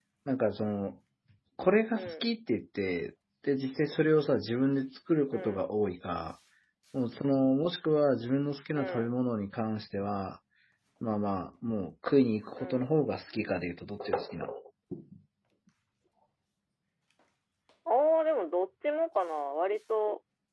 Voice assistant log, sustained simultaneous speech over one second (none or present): none